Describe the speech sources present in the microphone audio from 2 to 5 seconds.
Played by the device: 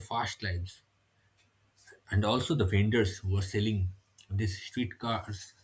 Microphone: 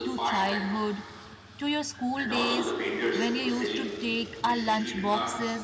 both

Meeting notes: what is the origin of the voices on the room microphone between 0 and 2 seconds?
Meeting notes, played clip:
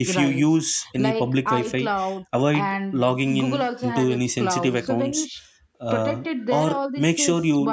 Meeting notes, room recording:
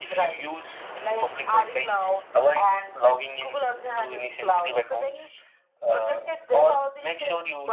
echo only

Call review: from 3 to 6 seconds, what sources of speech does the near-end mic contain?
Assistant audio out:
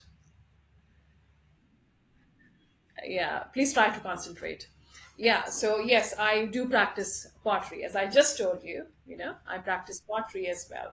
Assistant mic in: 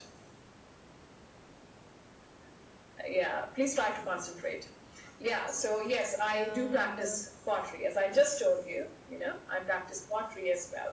echo only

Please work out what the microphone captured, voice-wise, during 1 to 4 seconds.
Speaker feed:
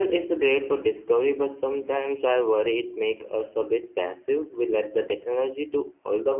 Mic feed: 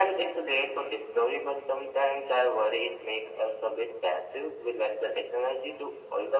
echo only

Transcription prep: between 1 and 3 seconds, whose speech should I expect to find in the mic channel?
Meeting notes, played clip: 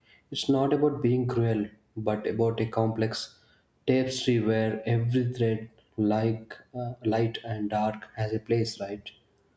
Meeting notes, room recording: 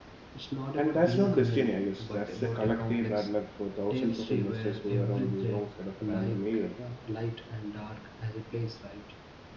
both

